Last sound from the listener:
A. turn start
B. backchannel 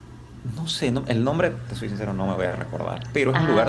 B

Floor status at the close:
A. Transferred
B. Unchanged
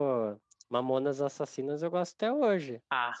A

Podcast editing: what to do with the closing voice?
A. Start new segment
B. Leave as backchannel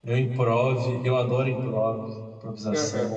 A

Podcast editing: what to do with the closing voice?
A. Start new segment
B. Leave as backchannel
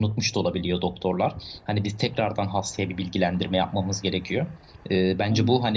B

